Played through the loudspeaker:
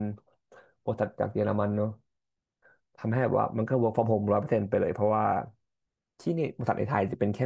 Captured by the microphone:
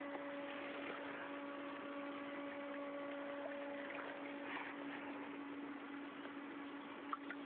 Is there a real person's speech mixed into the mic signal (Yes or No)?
No